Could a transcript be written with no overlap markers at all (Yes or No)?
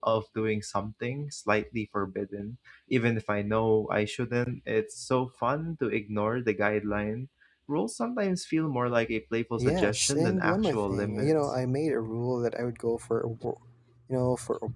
No